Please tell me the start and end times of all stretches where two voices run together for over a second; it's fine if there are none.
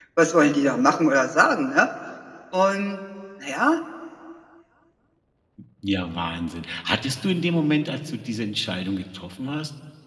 none

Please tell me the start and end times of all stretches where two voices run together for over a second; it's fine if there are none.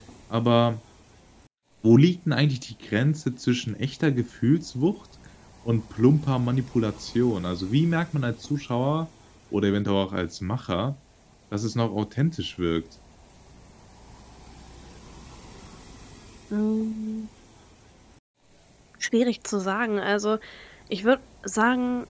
none

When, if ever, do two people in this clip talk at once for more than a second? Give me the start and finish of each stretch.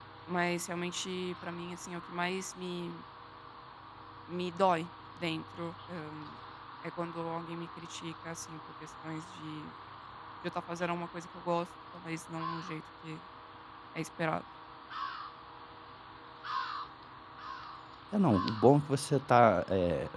none

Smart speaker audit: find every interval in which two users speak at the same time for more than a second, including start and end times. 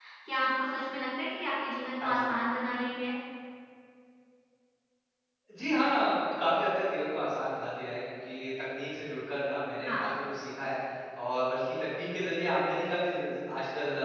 none

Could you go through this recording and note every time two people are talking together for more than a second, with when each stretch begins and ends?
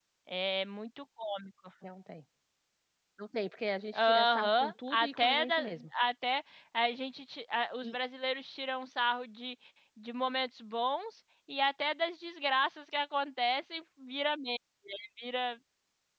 3.9-5.5

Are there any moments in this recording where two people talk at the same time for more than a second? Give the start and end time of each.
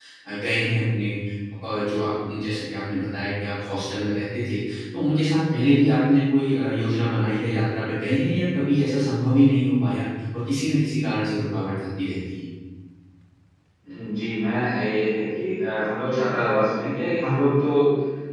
none

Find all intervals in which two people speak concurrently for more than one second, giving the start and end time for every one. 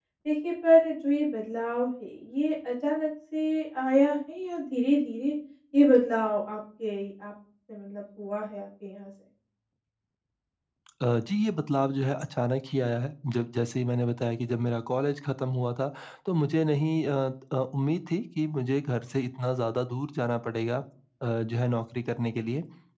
none

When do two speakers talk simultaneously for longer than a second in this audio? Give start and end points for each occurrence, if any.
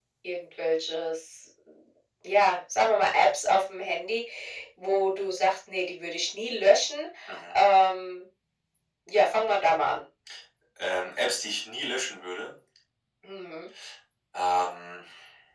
none

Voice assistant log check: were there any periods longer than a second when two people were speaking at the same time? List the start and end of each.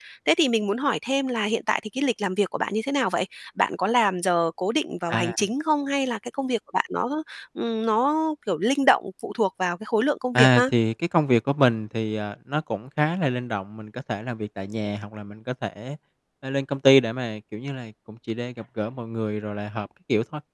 none

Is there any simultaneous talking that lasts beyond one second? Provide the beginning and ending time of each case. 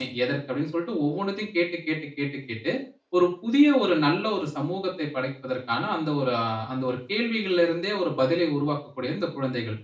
none

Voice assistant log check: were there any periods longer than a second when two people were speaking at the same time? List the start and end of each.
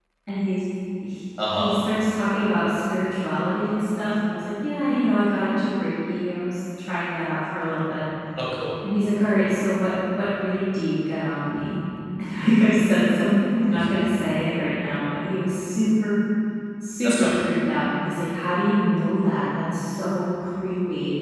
none

